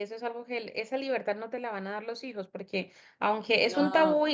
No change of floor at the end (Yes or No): Yes